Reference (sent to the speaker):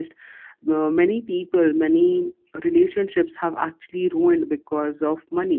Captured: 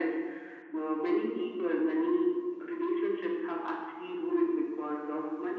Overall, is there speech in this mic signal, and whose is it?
echo only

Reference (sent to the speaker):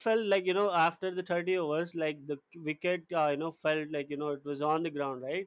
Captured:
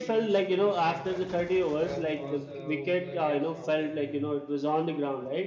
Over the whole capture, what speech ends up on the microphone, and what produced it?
both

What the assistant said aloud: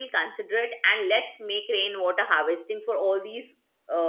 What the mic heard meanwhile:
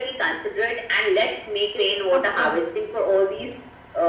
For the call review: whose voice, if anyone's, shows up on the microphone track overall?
both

